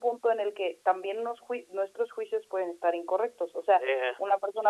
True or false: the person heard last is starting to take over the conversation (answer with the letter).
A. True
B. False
B